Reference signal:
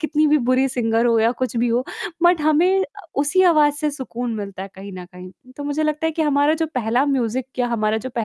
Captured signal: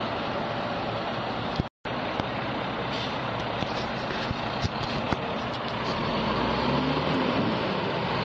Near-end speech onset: none

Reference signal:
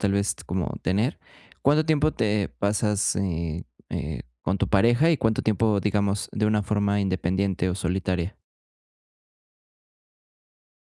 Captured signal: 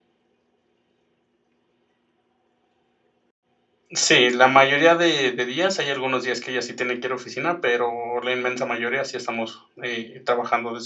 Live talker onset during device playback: 3.9 s

